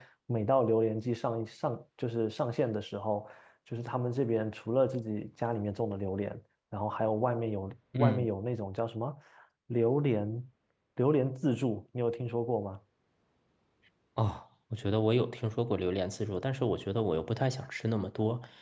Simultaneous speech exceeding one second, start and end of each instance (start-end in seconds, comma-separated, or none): none